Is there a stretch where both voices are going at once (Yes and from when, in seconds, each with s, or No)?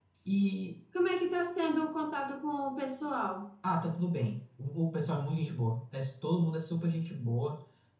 No